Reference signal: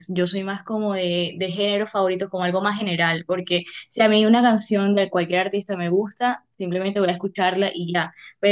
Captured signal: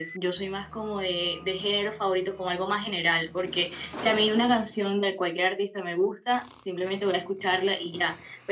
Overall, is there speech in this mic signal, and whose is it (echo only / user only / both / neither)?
echo only